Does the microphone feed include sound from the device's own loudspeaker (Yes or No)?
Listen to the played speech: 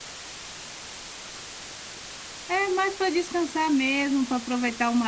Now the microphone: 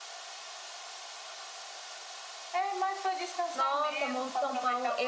Yes